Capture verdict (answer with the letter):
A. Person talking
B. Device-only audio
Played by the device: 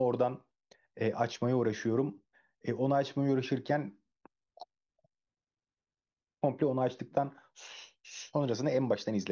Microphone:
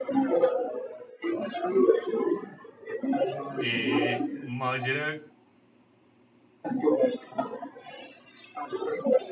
A